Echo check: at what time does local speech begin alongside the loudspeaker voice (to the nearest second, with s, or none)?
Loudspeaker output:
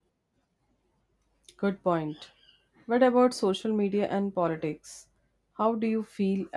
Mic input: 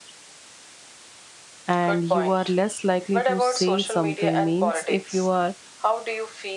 2 s